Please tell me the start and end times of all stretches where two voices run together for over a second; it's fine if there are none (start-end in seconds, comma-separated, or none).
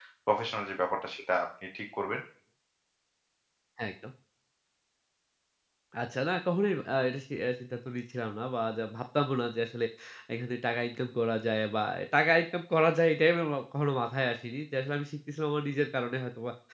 none